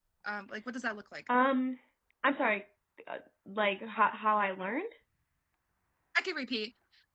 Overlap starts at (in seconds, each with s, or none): none